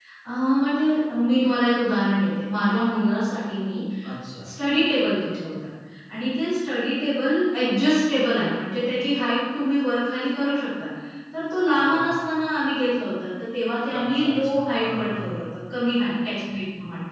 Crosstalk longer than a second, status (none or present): present